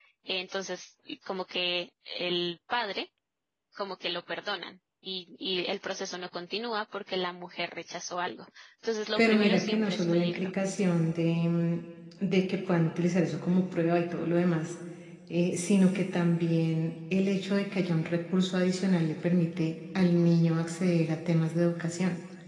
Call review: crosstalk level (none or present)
present